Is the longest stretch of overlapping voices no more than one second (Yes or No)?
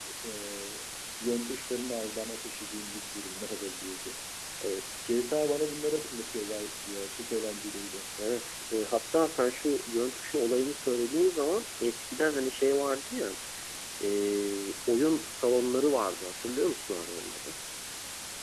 Yes